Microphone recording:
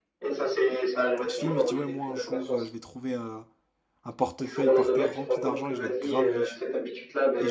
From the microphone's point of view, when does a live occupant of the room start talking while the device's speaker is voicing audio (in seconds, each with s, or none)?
1.2 s